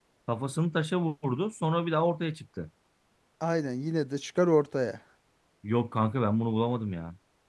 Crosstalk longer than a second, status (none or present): none